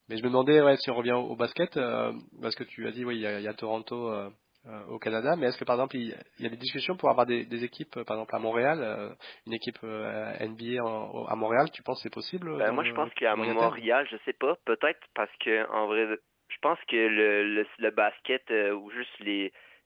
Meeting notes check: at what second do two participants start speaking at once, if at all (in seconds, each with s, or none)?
12.6 s